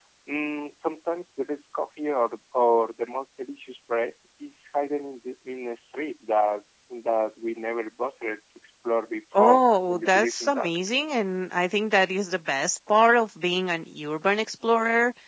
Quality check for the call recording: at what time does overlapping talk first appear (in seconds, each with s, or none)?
9.3 s